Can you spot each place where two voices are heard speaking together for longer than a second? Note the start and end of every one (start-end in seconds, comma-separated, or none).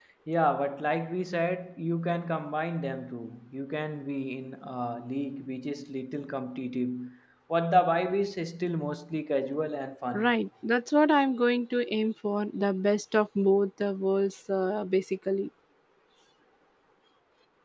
none